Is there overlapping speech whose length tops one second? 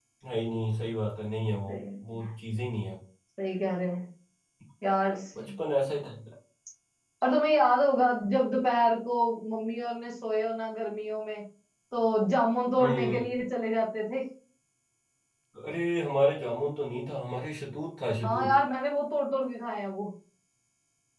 No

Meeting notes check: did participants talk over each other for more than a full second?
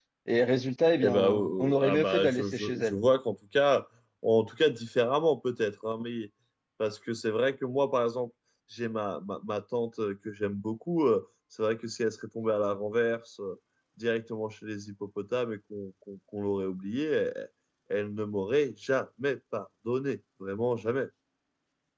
Yes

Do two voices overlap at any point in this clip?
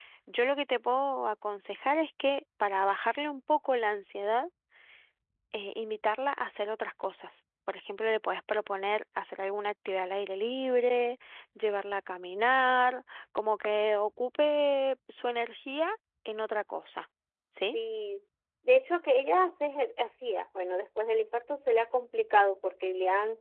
No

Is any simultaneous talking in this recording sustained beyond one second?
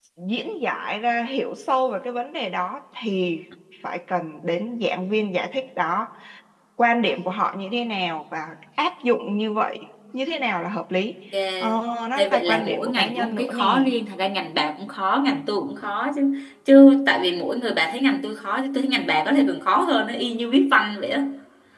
Yes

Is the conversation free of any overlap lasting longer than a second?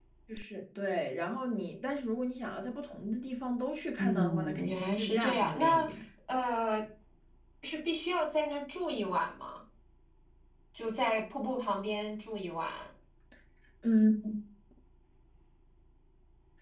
No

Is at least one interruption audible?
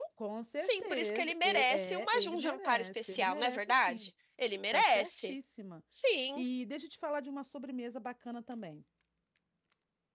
Yes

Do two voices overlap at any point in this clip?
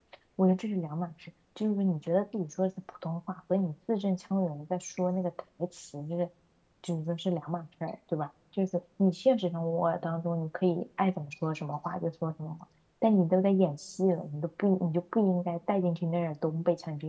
No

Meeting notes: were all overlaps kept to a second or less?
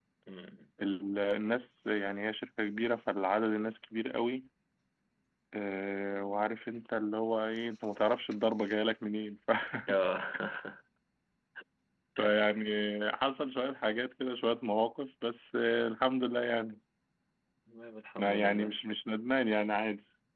Yes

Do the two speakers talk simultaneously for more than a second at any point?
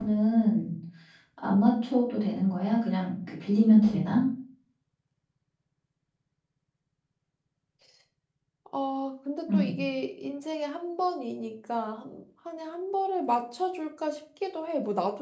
No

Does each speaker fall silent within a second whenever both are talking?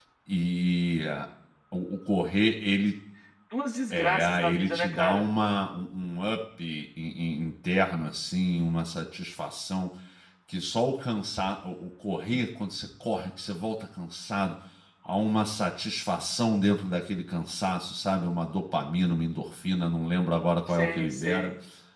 No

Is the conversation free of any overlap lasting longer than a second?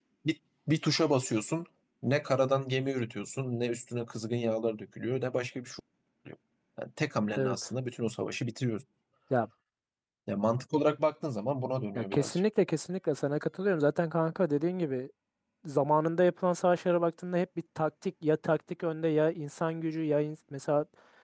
Yes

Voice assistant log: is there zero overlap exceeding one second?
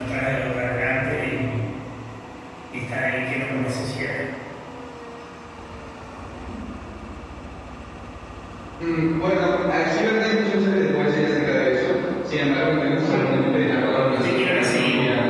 No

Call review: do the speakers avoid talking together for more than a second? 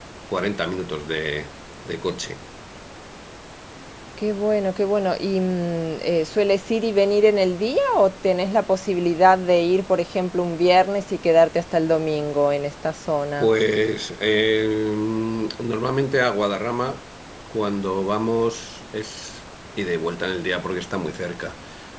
Yes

